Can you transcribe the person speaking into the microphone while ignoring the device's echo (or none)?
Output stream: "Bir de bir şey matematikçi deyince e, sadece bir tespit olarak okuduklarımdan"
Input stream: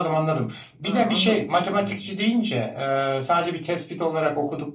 Ha anladım. Şimdi anladım.